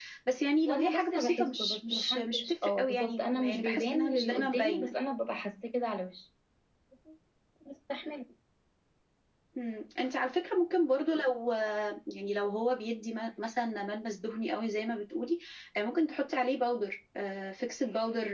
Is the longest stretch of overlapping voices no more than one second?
No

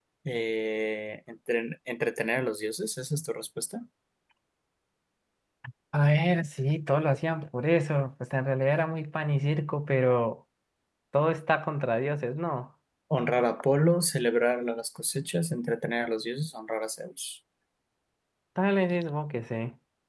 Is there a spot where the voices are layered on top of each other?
No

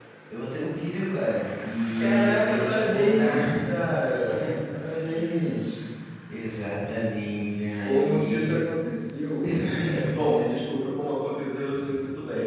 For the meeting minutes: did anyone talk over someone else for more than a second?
Yes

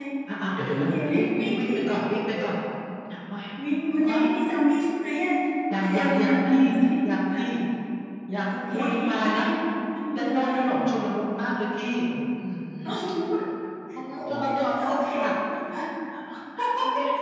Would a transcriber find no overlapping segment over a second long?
No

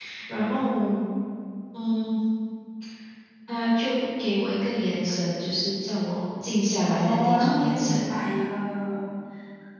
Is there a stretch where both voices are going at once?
Yes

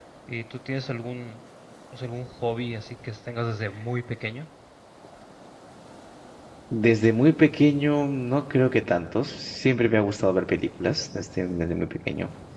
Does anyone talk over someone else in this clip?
No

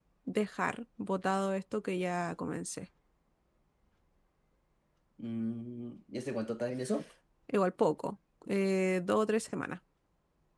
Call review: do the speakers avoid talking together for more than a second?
Yes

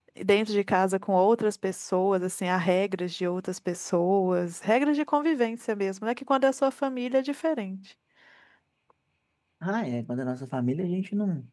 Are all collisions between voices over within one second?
Yes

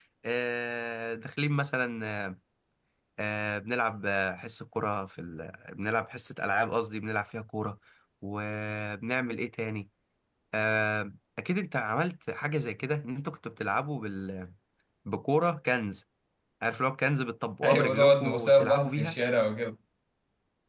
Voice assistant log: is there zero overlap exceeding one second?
No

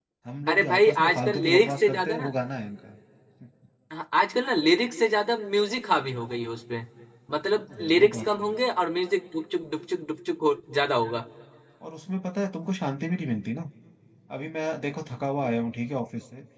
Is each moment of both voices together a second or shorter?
No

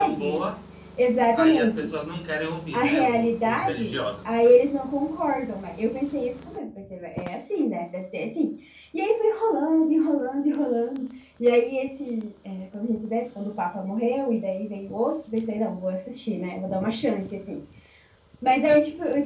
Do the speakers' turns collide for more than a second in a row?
Yes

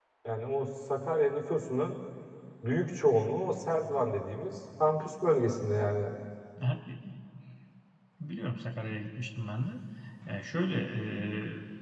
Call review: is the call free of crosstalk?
Yes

